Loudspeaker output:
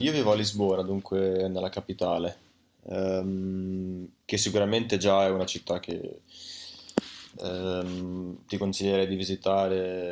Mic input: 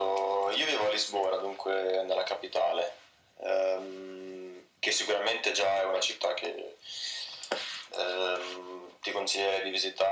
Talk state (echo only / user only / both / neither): echo only